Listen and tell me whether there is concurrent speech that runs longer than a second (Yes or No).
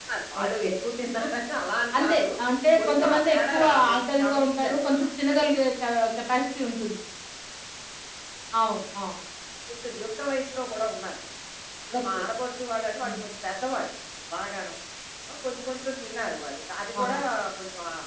Yes